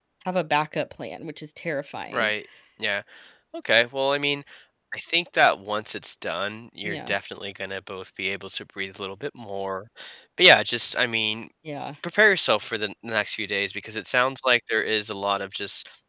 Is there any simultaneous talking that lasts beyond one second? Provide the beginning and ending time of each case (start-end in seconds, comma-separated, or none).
none